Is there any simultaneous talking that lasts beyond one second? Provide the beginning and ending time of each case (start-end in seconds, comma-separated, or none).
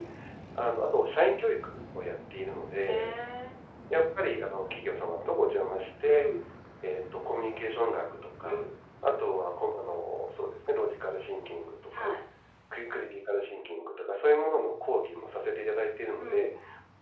none